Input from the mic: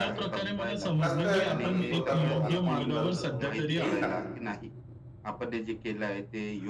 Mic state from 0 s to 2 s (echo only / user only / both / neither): both